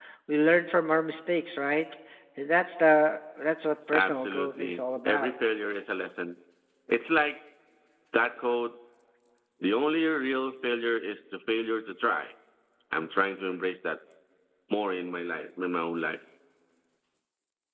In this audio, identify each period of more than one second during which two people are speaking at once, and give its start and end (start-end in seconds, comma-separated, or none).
3.9-5.3